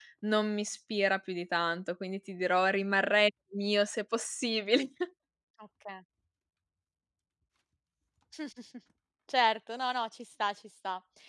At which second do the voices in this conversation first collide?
none

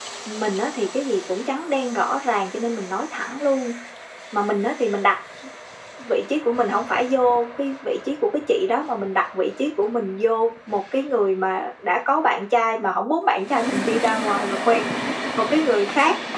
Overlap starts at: none

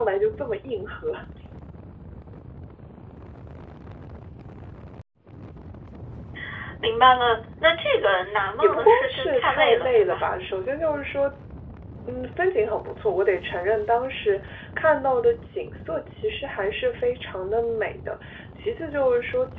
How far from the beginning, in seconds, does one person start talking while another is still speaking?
8.6 s

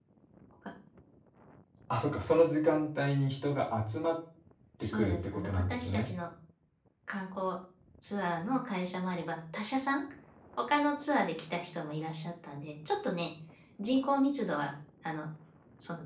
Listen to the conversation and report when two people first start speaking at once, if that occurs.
4.8 s

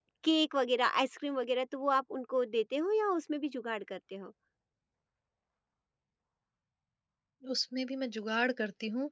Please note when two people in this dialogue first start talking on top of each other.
none

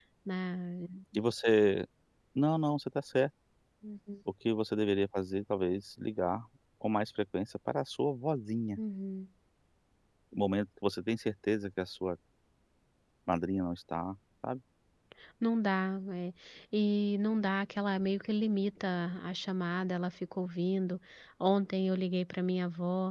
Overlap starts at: none

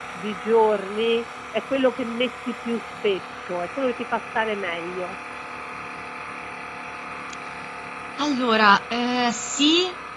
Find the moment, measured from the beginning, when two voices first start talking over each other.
none

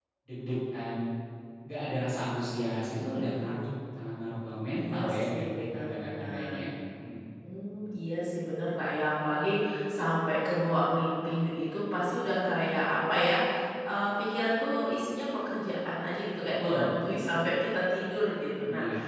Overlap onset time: 4.8 s

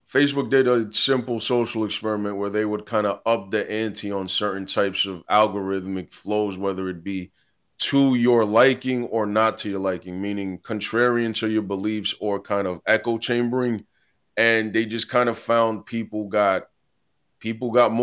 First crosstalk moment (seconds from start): none

